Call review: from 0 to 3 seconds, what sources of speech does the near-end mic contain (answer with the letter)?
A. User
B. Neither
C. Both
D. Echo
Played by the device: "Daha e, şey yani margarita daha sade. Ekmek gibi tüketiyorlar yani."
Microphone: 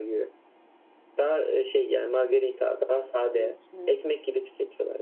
D